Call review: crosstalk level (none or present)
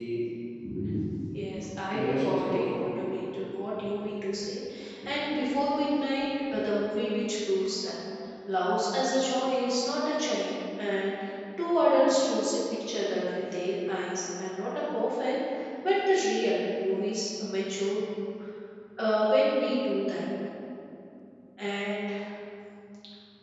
present